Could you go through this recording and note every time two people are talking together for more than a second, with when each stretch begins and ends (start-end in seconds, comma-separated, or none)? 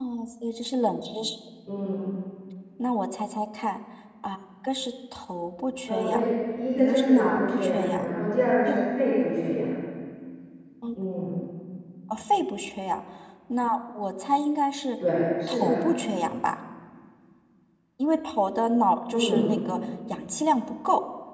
6.8-8.0